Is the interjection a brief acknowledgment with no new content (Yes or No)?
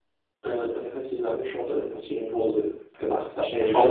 No